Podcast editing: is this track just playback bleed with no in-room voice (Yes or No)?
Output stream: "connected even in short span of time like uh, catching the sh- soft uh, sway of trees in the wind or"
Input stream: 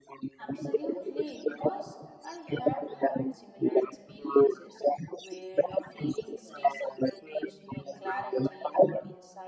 No